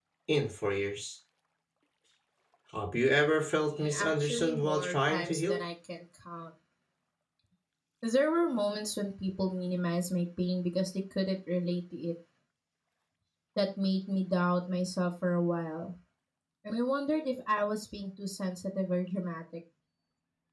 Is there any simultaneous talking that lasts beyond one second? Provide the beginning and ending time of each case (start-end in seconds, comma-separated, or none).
3.8-5.6